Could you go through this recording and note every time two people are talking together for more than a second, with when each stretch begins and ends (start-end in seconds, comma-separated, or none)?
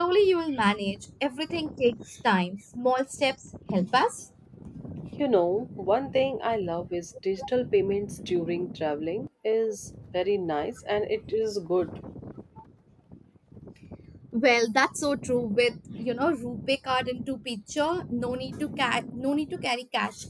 none